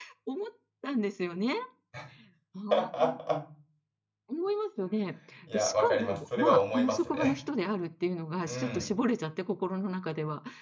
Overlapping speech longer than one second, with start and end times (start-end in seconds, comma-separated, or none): 5.5-7.3